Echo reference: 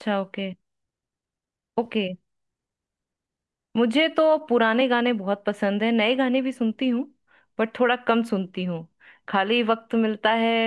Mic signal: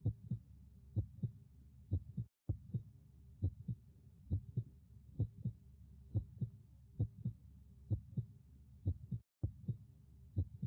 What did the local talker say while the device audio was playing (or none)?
none